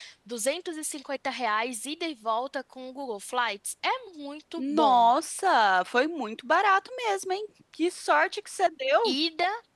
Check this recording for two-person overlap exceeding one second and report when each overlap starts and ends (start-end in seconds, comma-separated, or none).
none